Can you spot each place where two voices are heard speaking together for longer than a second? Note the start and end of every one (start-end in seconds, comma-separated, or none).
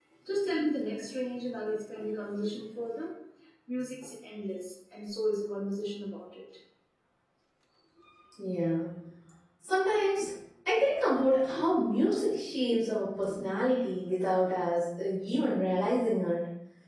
none